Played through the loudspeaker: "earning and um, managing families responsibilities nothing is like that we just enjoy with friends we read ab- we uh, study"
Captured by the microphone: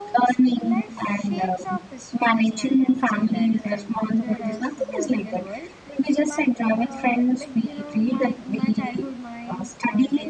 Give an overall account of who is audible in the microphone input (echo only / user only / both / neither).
both